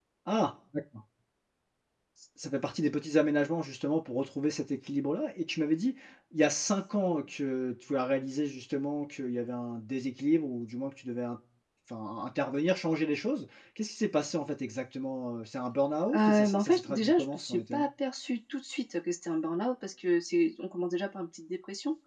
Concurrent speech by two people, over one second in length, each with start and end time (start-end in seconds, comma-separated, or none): 16.1-17.9